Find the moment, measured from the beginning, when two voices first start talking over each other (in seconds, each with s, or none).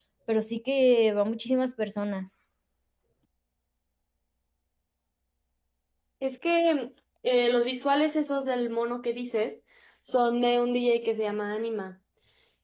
none